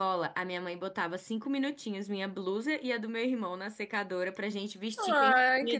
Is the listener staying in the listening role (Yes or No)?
No